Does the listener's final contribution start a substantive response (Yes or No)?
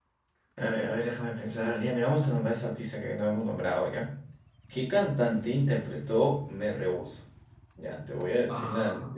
No